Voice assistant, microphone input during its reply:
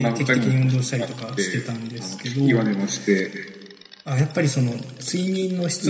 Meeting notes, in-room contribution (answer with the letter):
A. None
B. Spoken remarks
A